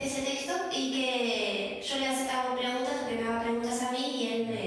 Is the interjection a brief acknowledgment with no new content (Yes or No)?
Yes